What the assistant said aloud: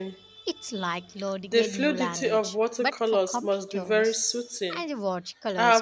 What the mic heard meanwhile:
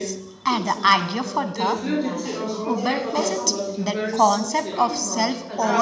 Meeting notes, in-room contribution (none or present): present